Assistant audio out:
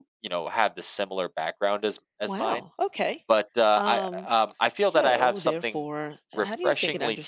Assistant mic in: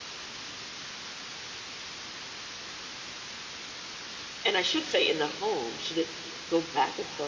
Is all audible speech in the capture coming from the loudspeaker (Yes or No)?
No